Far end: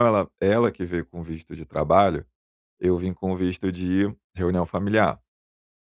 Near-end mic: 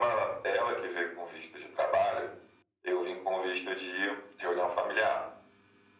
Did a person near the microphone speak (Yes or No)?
No